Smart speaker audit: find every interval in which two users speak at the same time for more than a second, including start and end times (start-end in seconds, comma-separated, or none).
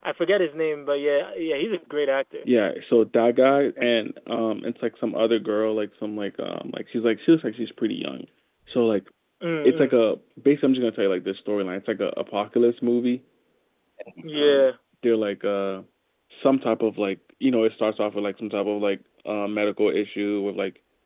none